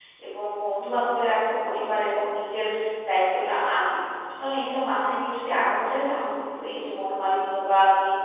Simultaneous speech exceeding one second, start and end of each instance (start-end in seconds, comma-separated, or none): none